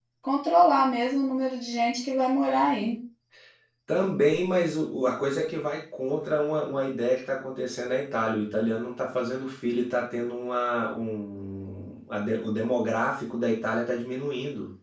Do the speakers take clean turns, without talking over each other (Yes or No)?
Yes